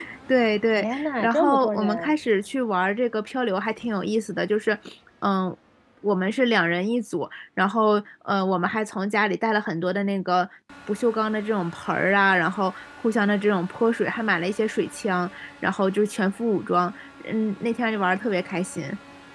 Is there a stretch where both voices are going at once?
Yes, from 0.8 s

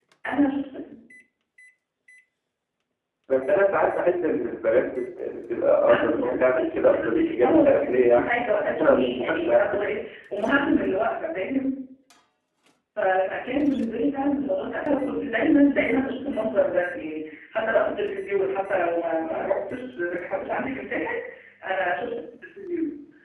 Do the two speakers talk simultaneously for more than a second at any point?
Yes, from 5.8 s

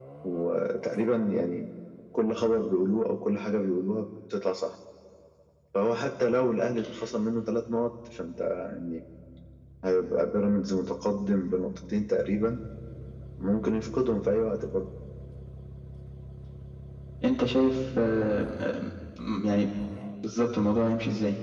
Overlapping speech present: No

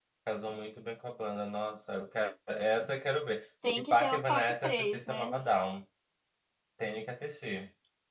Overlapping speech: Yes, from 3.6 s

